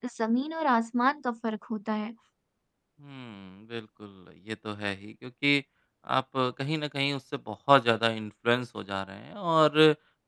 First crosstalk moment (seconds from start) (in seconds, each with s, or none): none